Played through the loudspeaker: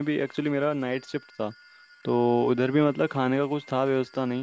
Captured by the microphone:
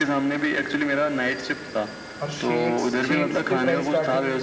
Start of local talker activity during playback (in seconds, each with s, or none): 2.2 s